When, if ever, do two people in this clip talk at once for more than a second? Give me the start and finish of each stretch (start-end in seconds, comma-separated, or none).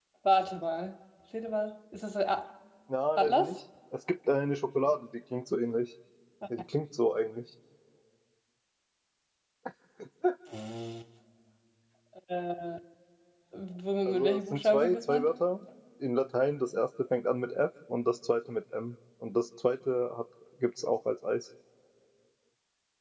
14.1-15.3